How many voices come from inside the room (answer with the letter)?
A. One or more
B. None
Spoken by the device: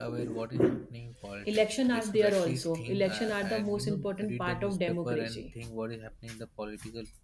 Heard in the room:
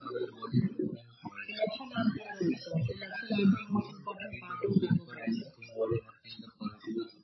B